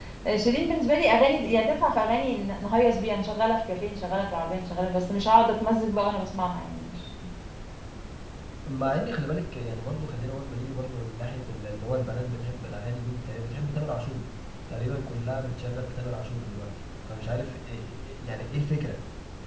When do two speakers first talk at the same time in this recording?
none

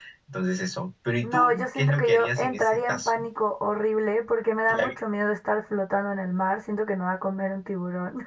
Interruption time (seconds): 1.2 s

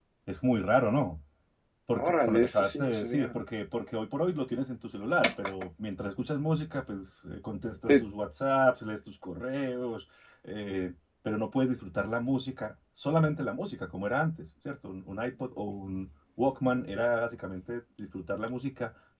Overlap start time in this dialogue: 1.9 s

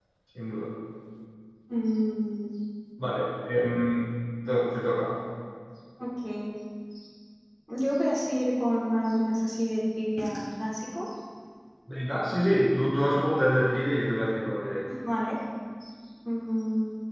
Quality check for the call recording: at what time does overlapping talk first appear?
none

